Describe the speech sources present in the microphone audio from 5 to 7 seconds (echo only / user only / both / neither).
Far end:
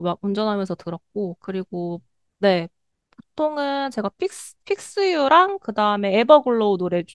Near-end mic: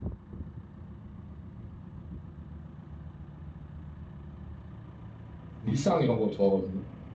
user only